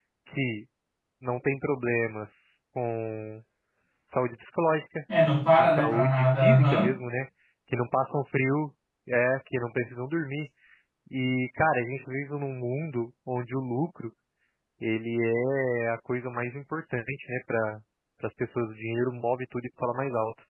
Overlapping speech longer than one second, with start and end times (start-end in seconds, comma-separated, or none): 5.6-6.9